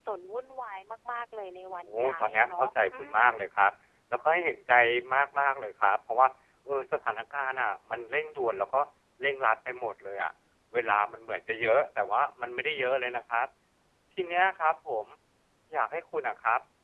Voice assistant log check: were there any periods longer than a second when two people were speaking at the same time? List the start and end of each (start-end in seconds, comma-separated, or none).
1.9-3.3